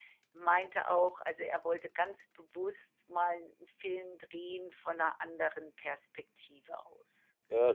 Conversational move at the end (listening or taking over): taking over